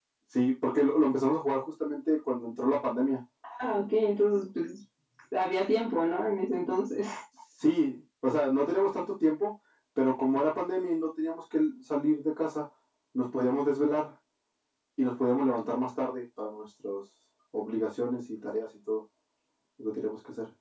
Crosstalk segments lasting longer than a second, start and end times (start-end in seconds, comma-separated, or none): none